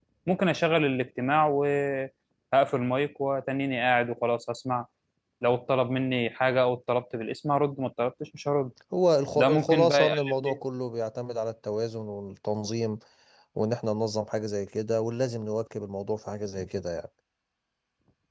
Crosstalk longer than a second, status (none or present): present